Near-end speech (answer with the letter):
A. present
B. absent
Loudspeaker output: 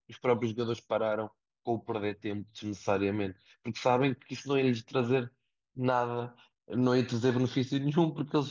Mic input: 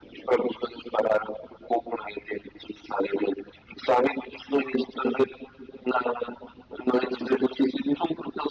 B